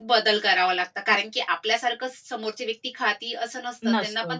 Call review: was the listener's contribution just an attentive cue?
Yes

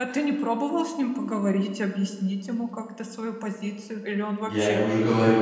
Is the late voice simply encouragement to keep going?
No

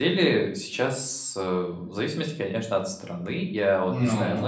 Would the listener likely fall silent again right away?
Yes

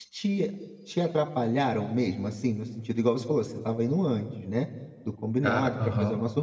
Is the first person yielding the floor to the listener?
No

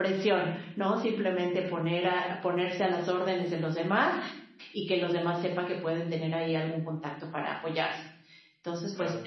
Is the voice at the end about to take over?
No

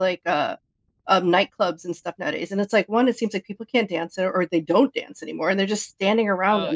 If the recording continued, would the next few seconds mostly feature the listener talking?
Yes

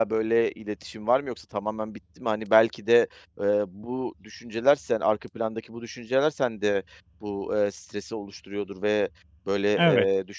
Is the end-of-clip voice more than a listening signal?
No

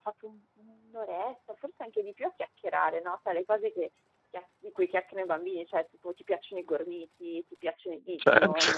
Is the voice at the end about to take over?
No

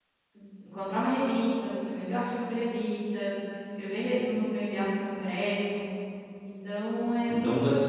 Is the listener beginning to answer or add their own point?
Yes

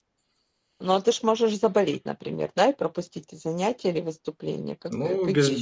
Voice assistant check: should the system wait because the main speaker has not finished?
No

